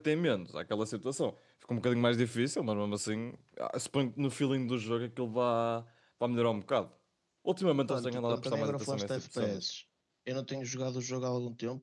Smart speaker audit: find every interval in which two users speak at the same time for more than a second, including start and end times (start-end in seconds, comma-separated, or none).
7.9-9.6